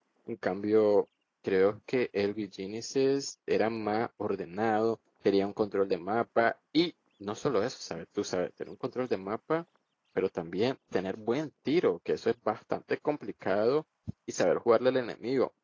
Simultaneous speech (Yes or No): No